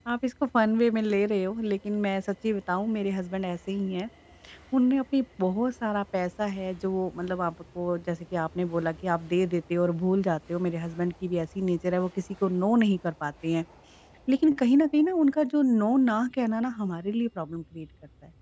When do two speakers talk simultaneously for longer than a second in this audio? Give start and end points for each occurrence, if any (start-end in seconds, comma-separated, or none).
none